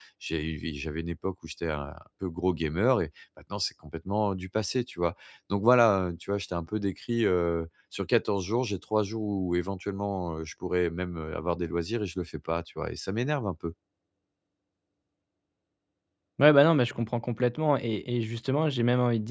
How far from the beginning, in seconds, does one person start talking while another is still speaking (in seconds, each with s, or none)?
none